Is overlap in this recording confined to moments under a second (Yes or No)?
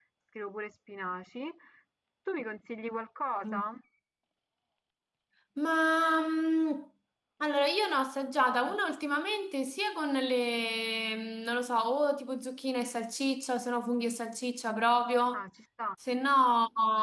Yes